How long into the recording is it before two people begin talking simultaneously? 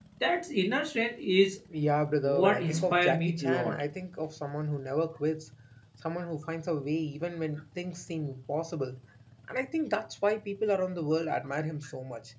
2 s

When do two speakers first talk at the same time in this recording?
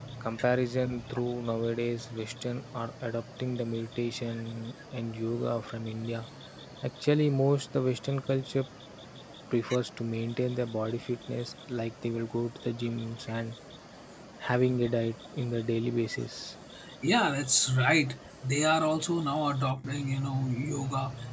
none

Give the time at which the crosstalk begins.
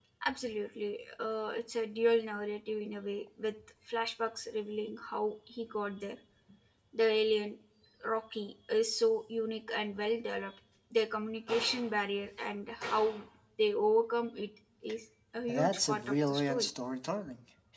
15 s

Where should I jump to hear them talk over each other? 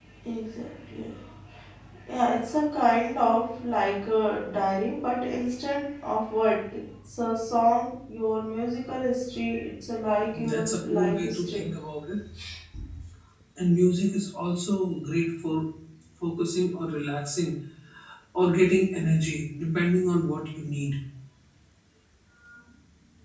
10 s

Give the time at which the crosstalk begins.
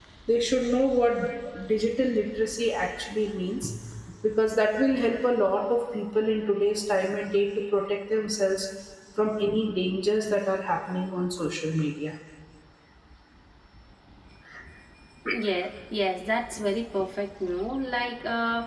none

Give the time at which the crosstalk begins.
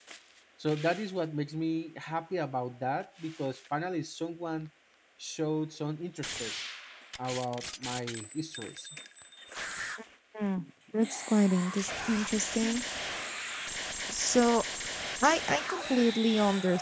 none

